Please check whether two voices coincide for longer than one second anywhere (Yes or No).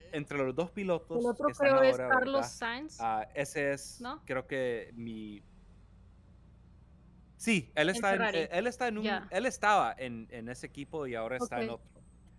Yes